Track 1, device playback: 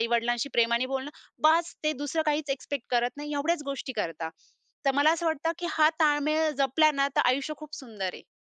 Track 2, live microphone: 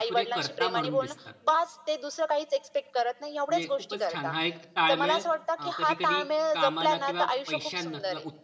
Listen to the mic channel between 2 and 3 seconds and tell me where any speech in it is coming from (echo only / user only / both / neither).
echo only